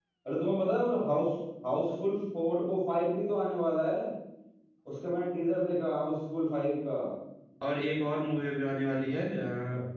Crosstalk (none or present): none